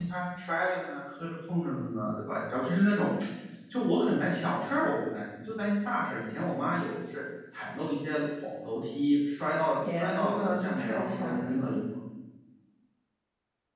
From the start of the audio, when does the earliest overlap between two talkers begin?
9.8 s

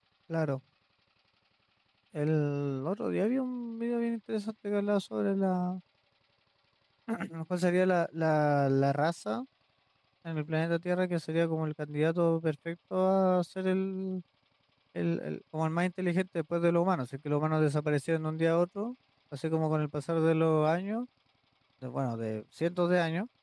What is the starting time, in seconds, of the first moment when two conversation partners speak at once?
none

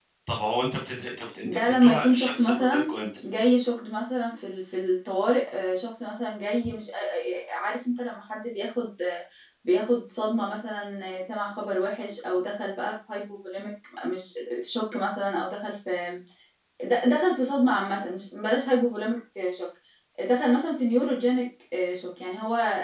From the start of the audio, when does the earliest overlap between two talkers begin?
1.4 s

